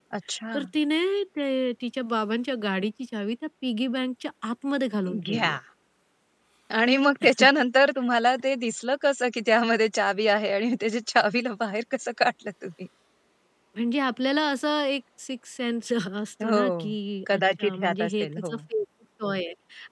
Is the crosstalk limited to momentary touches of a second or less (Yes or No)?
No